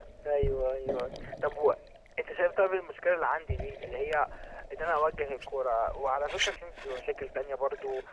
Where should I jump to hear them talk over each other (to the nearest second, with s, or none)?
none